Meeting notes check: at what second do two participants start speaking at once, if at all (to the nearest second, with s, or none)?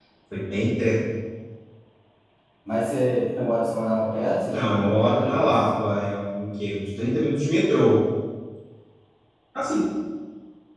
4 s